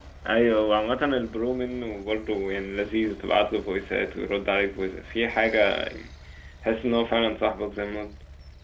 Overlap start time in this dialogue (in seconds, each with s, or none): none